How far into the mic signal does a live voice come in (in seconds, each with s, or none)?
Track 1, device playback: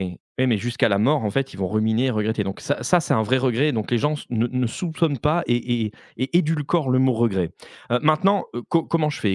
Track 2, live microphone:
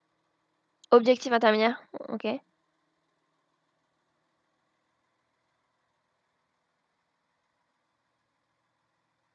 0.9 s